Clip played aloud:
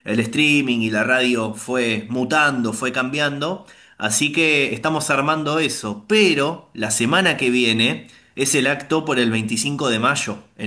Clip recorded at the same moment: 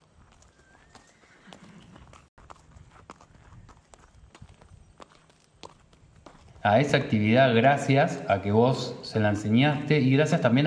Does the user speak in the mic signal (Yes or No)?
Yes